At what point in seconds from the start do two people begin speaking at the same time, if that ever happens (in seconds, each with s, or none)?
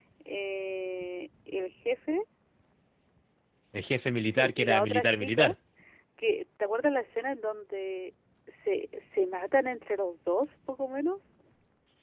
4.3 s